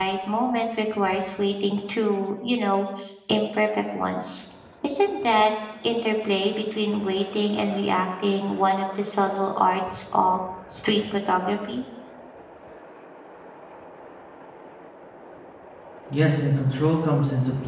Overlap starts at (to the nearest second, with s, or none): none